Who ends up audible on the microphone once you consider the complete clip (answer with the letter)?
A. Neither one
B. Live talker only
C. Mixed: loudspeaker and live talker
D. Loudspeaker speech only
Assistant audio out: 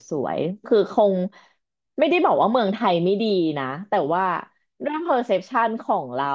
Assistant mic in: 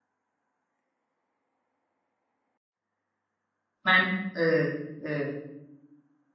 B